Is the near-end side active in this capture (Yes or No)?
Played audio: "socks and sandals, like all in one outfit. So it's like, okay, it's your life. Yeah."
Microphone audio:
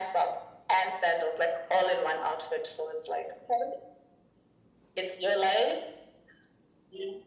No